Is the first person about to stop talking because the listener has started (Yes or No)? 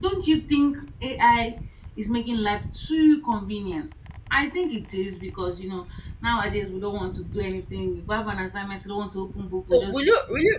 Yes